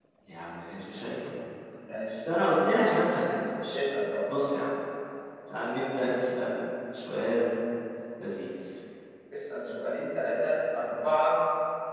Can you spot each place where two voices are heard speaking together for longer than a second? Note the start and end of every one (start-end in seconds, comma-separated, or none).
none